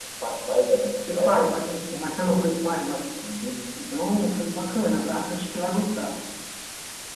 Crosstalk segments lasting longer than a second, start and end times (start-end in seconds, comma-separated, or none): none